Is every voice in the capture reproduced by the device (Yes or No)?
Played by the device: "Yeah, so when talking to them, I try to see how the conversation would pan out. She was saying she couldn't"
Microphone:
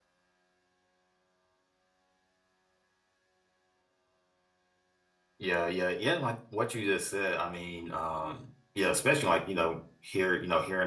No